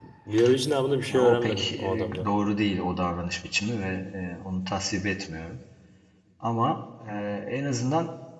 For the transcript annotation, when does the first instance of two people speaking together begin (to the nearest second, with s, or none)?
1 s